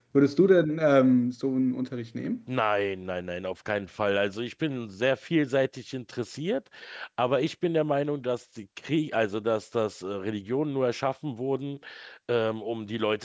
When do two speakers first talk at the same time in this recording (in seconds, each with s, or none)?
none